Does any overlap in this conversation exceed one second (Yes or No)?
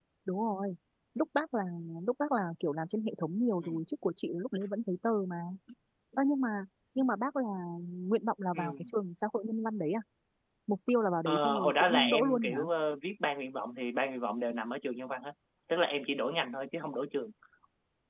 Yes